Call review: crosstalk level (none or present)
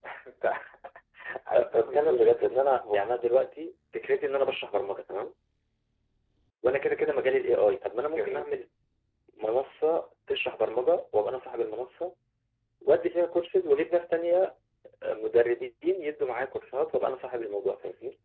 present